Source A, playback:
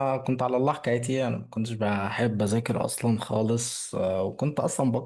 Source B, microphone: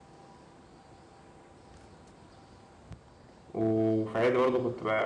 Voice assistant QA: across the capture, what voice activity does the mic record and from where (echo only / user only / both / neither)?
user only